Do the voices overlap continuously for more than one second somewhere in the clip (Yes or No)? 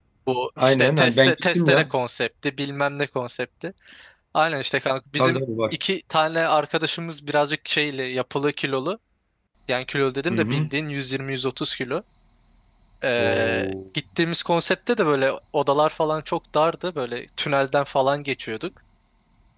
Yes